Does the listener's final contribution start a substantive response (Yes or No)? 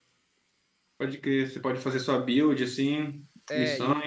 Yes